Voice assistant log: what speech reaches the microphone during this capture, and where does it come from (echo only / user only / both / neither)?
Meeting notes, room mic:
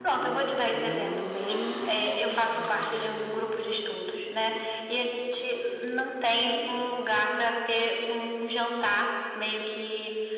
echo only